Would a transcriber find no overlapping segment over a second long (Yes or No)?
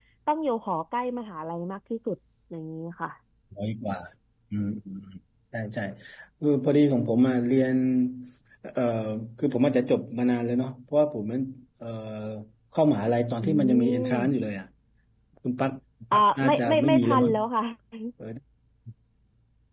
No